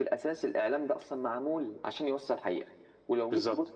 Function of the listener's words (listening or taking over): listening